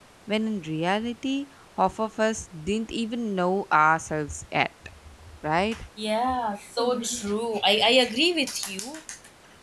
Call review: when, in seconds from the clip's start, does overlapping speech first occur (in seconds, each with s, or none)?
none